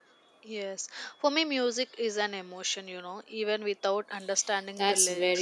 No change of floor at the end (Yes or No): No